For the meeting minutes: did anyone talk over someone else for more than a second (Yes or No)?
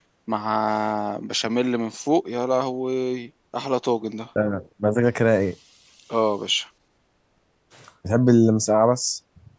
No